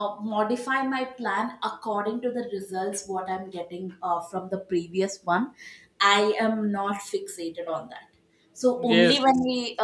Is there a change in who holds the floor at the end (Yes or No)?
No